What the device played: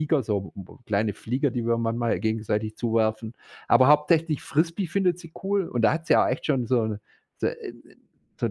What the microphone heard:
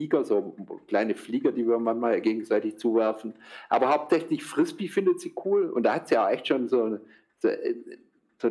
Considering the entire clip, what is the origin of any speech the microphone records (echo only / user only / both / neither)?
echo only